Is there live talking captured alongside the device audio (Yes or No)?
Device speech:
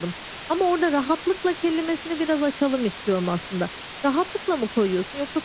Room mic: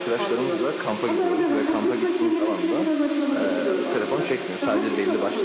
Yes